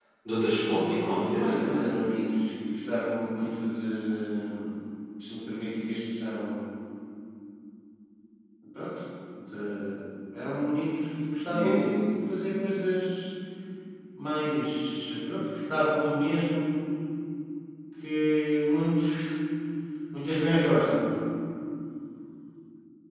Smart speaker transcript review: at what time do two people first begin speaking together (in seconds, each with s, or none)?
0.7 s